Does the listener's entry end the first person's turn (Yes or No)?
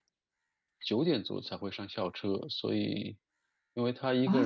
Yes